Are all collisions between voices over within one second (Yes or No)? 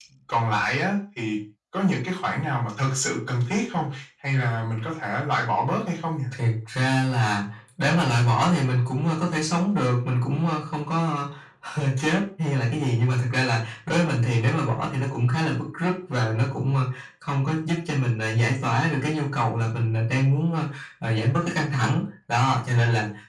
Yes